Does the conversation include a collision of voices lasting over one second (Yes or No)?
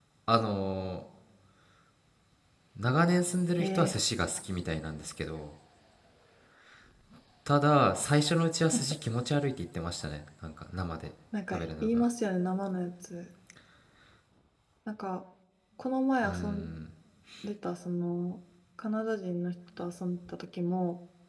No